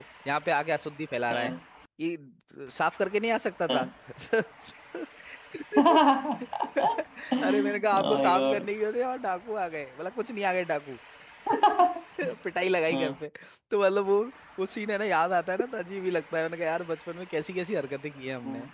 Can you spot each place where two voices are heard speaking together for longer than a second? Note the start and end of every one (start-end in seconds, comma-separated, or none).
7.4-8.7